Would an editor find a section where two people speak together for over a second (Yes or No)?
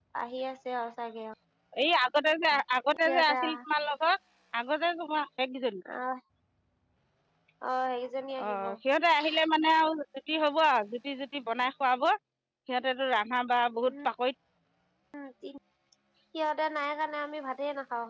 No